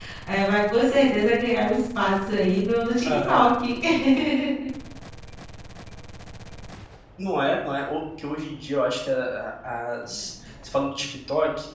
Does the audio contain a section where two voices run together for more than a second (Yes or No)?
No